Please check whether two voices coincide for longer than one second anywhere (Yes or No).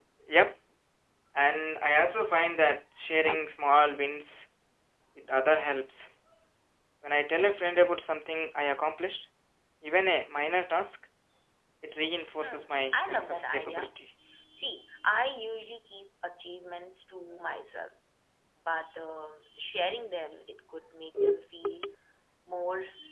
Yes